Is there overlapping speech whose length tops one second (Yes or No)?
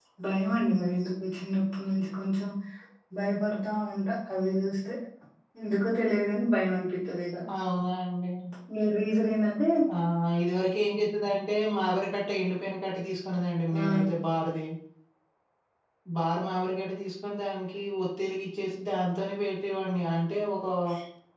No